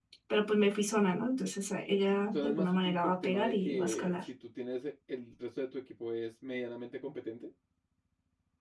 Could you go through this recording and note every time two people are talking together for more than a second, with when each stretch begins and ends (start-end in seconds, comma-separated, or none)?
2.3-4.2